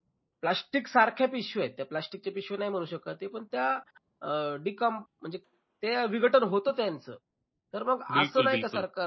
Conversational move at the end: listening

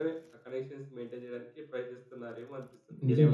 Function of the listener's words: taking over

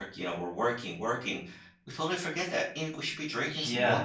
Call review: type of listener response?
taking over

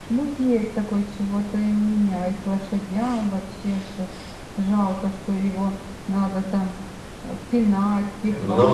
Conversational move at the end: taking over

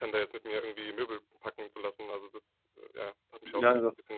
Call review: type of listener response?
taking over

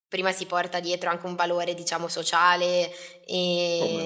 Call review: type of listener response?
listening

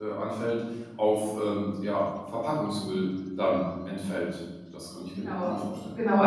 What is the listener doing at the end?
taking over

